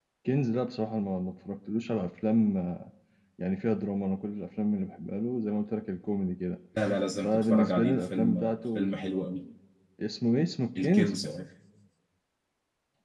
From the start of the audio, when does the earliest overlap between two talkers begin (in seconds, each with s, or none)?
7.2 s